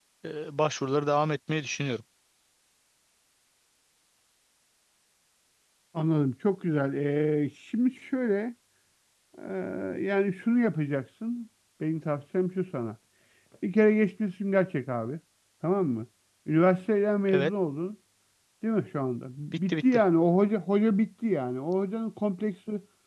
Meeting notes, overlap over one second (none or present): none